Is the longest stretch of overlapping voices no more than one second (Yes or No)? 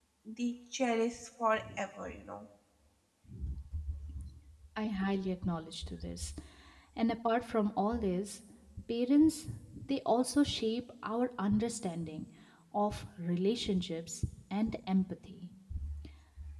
Yes